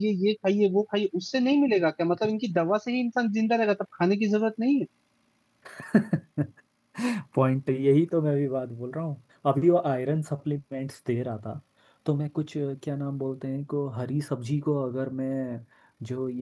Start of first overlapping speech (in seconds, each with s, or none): none